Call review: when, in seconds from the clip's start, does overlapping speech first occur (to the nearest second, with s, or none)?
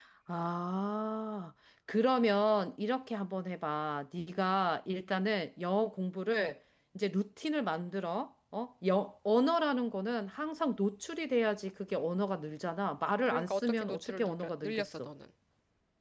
13 s